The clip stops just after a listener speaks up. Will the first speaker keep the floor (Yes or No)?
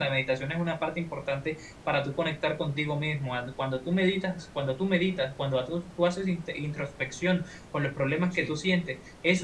Yes